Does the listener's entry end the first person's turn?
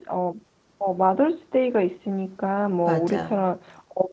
No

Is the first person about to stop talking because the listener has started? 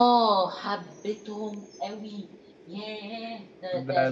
Yes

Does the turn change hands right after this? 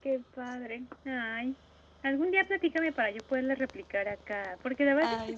No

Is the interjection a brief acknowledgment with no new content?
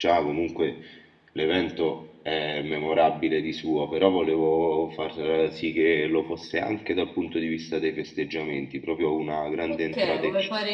No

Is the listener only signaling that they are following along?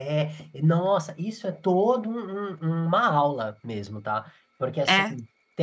Yes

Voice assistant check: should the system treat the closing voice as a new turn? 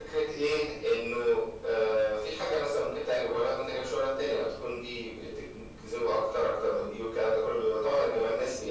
No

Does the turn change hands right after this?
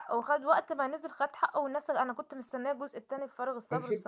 Yes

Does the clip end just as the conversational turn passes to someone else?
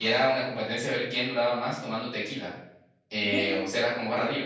No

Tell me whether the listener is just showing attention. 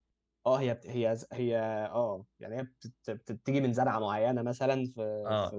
No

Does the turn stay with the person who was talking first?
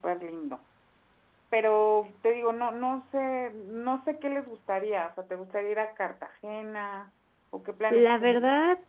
No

